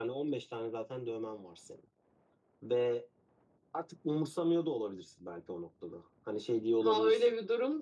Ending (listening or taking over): taking over